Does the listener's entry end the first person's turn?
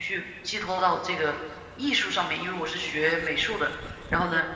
No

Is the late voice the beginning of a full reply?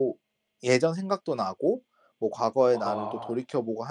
No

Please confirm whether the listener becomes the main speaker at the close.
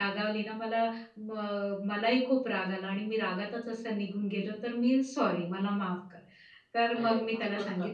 No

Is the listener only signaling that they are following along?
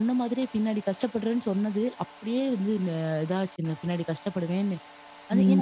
No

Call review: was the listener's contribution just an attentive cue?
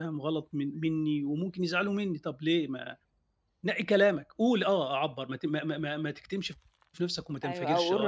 No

